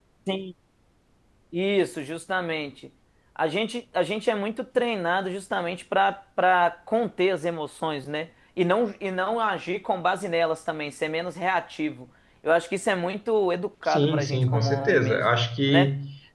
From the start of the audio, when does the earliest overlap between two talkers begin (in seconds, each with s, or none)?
13.9 s